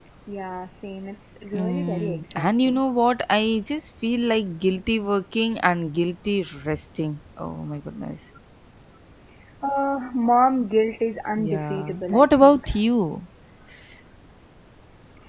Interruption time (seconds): 2 s

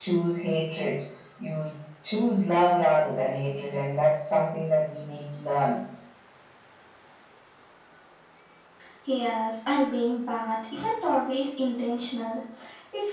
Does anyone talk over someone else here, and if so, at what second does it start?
none

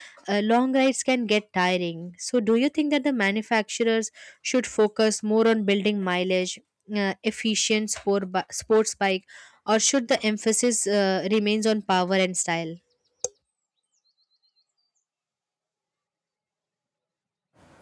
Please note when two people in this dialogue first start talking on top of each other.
none

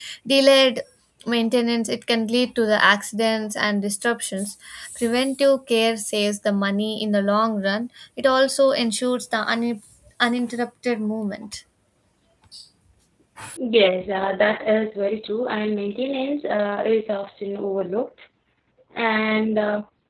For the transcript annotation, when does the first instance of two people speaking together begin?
none

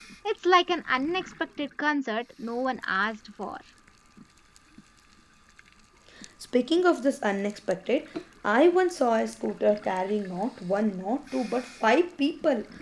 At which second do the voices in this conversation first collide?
none

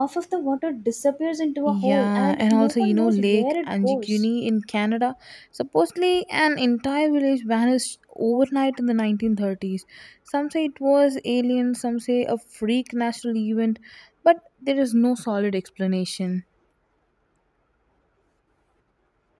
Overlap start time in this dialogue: 2 s

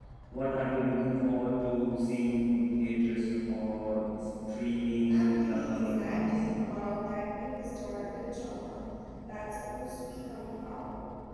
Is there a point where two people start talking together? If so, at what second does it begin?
5 s

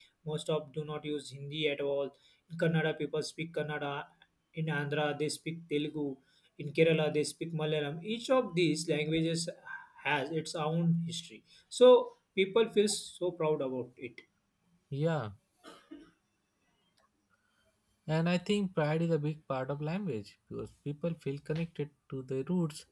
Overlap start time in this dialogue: none

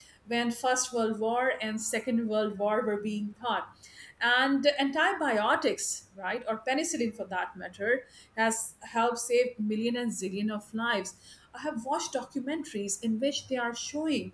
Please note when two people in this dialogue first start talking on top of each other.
none

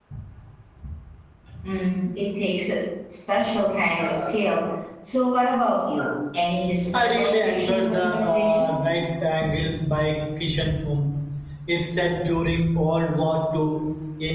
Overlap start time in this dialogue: 7 s

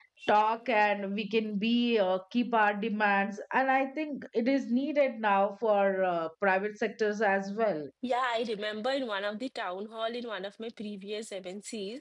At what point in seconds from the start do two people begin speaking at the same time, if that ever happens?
none

